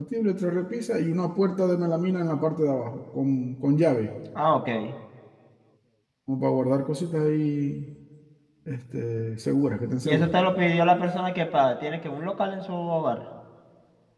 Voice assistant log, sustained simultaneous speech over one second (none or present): none